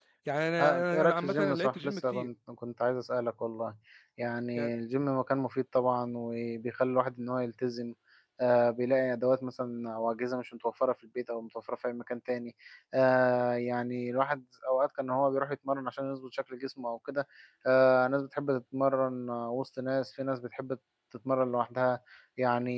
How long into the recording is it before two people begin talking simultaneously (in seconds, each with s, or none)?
0.6 s